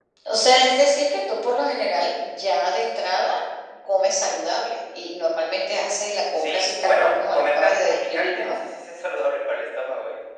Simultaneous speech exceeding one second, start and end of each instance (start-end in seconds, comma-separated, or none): 6.4-8.6